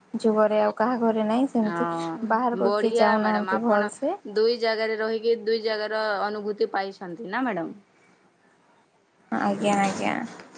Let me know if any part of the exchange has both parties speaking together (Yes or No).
Yes